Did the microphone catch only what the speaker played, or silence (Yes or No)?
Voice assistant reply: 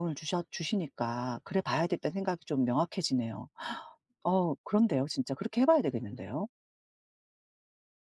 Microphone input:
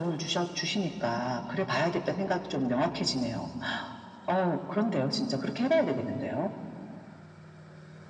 Yes